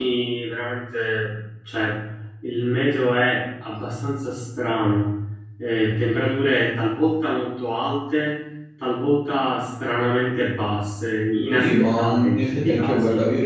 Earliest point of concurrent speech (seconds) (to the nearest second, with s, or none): 12 s